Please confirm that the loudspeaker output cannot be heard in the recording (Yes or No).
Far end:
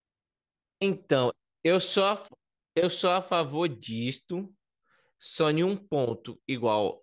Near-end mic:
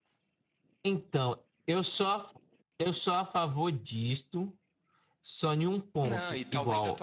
No